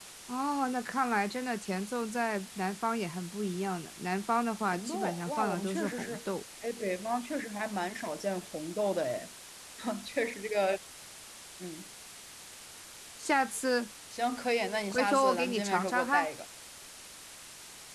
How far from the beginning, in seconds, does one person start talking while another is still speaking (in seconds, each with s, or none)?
4.7 s